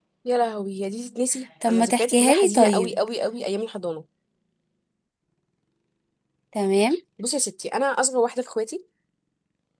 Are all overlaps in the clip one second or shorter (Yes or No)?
No